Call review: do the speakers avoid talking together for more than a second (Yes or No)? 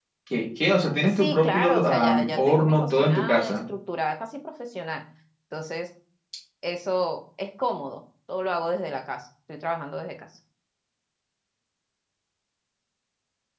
No